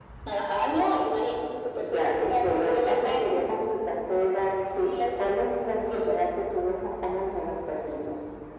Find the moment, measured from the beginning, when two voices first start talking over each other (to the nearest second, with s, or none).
2 s